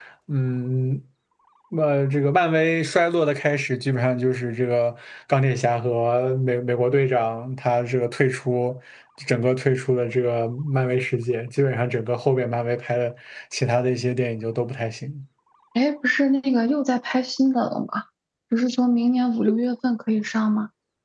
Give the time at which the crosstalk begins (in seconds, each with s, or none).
none